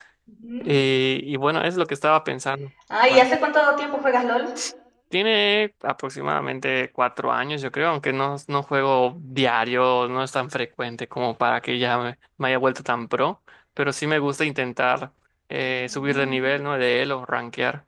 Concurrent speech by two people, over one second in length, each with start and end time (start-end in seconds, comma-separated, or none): none